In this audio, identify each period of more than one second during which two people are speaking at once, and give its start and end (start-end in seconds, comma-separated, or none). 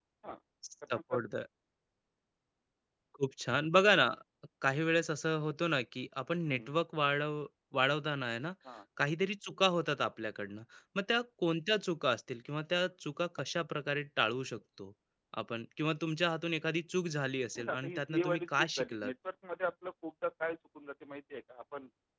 17.6-19.1